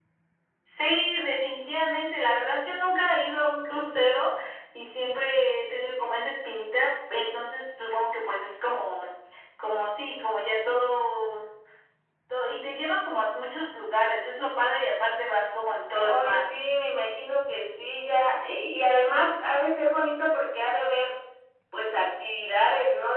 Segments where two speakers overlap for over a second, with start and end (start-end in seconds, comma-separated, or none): none